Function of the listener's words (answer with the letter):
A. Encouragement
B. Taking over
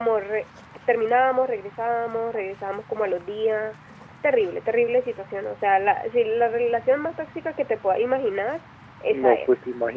B